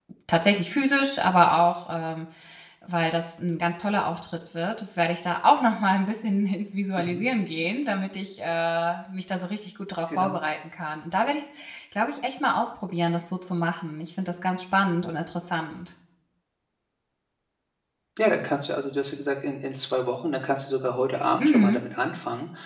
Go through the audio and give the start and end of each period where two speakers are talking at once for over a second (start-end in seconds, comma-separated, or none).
none